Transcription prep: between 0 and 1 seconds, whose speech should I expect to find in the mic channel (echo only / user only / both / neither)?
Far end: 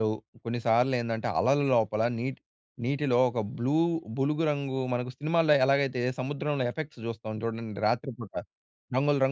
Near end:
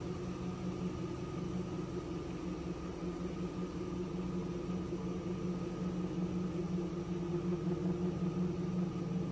neither